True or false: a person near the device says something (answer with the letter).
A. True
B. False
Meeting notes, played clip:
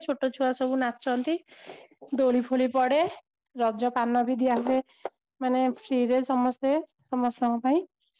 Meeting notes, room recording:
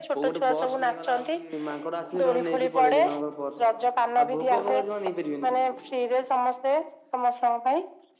A